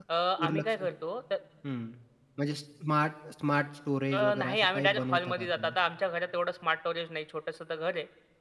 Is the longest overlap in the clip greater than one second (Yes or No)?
Yes